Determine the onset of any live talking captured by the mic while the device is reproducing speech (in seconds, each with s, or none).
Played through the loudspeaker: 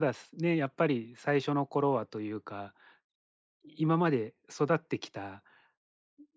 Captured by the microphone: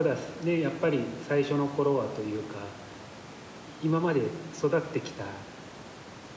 none